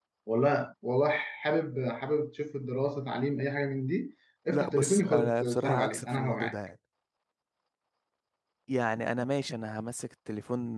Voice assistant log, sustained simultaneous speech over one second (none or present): present